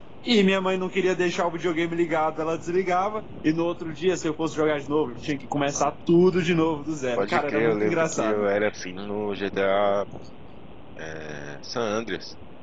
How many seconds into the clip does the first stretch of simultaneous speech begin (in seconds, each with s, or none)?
7.2 s